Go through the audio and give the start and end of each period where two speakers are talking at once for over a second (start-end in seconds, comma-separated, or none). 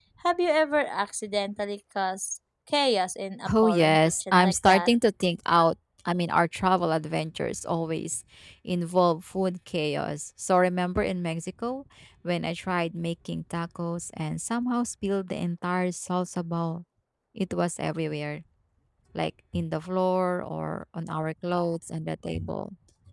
3.6-4.9